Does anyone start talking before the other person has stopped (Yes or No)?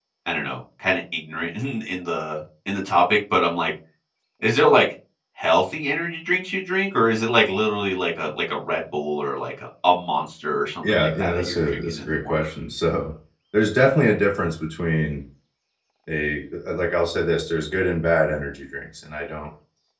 Yes